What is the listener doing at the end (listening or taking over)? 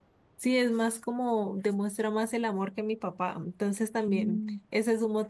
listening